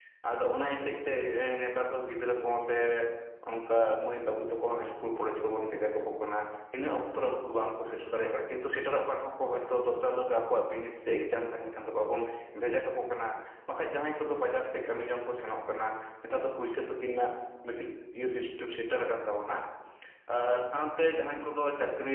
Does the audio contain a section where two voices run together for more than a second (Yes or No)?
No